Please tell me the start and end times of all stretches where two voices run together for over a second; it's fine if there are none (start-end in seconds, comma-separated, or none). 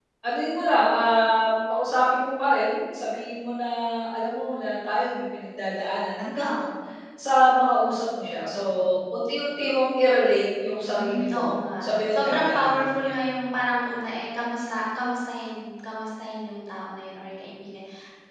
10.8-13.1